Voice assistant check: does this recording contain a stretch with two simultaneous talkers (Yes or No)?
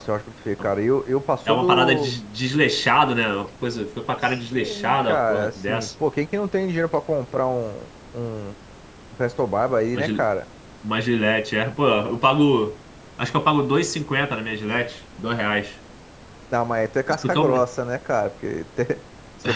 Yes